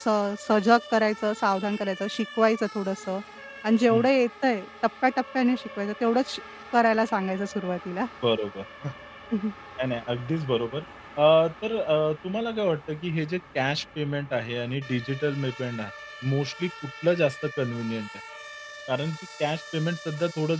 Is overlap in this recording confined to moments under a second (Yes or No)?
Yes